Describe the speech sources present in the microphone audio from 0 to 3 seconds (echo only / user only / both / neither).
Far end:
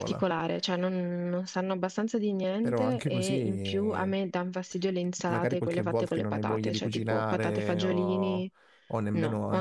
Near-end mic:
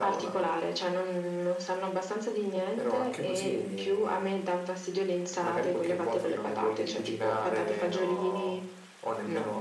echo only